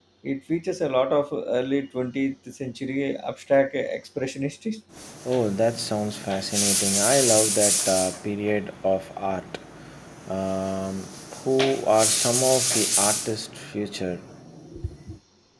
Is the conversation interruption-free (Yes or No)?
Yes